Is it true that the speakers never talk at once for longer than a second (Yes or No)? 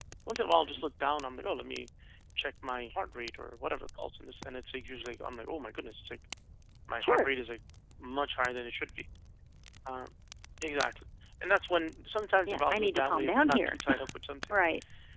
No